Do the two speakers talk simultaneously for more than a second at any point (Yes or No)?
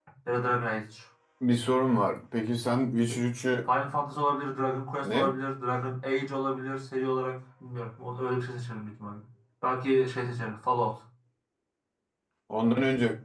No